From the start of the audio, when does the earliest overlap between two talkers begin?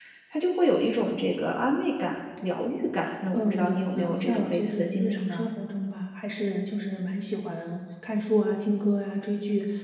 3 s

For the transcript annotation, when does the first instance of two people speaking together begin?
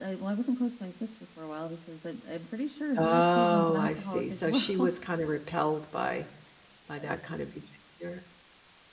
3 s

